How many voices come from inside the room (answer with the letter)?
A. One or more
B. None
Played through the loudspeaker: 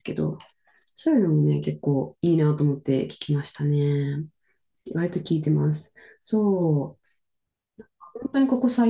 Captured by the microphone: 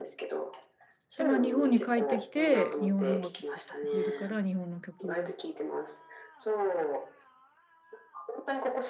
A